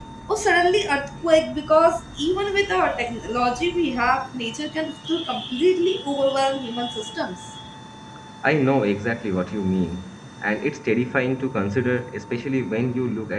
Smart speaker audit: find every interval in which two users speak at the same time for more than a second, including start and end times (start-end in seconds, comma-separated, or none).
none